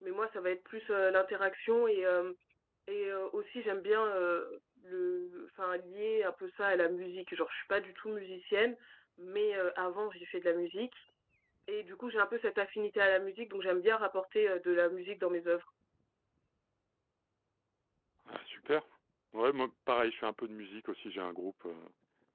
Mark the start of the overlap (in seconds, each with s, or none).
none